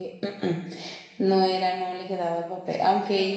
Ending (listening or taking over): listening